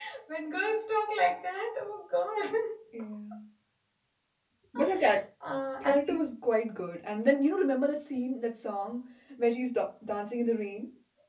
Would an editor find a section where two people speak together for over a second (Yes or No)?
No